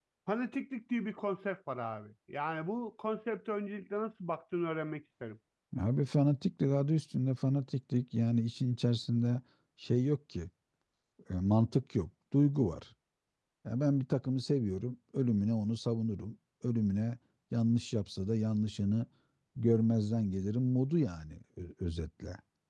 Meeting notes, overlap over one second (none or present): none